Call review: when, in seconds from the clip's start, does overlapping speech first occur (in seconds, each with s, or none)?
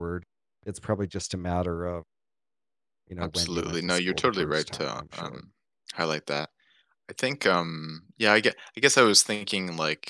3.2 s